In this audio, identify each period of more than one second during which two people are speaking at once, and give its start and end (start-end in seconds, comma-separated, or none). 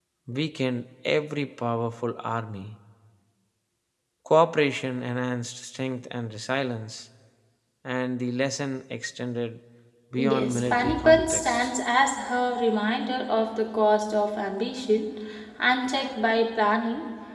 10.2-11.7